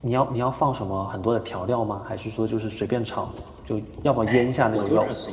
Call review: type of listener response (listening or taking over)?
taking over